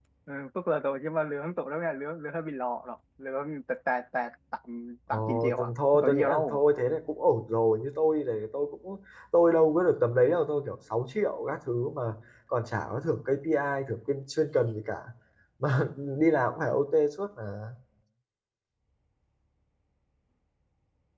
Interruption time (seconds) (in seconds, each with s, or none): 5.1 s